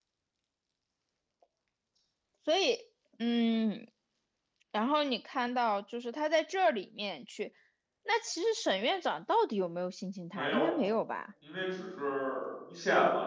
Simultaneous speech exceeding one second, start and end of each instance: none

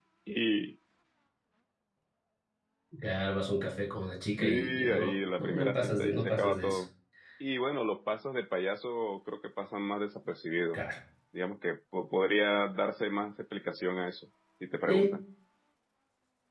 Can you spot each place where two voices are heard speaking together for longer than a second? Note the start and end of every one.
4.4-6.8

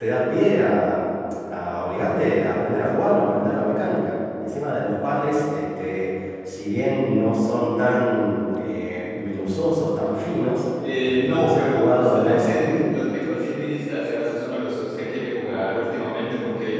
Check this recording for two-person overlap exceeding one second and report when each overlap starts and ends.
11.0-12.7

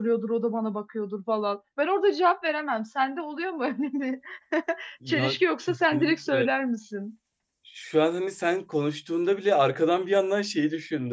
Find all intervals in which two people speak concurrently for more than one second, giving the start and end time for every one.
5.1-6.5

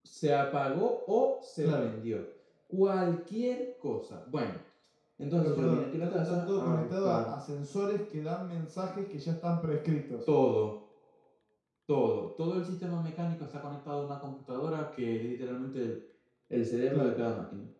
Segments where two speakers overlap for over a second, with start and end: 5.3-7.3

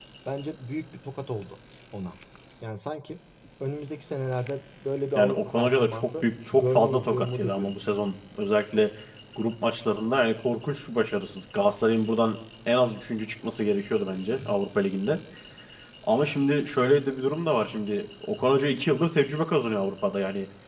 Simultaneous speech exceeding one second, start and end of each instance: 5.2-7.7

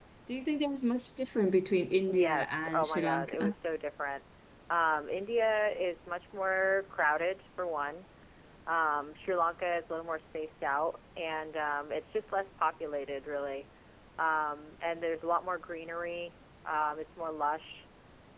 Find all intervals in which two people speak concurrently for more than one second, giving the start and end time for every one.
2.1-3.5

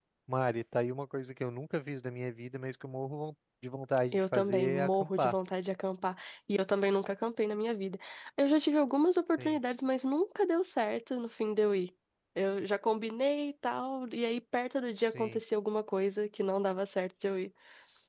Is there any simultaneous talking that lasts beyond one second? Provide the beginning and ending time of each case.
4.1-5.3

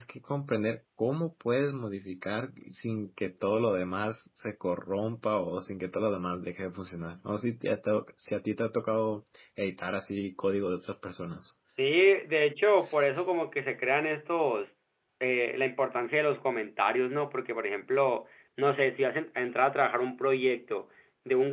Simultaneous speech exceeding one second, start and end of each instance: none

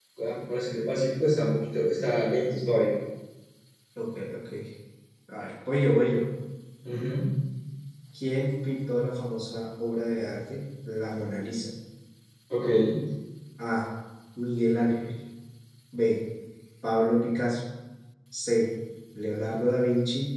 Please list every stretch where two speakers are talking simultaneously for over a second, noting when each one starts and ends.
none

